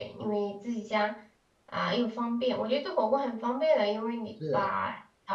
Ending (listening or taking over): listening